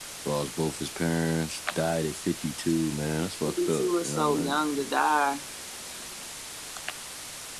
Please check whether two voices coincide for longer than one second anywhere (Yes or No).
Yes